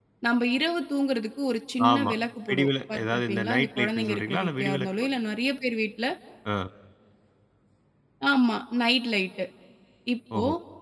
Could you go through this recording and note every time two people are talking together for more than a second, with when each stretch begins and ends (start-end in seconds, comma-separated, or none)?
2.5-4.9